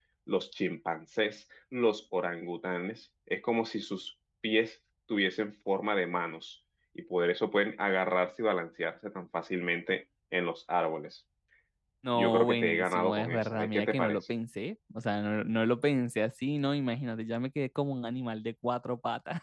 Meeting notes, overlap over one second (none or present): present